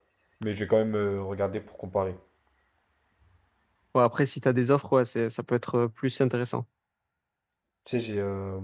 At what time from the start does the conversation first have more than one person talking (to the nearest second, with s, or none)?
none